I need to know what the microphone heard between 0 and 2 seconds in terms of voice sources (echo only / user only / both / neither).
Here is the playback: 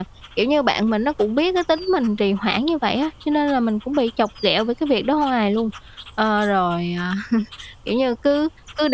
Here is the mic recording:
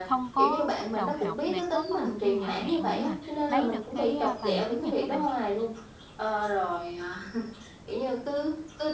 both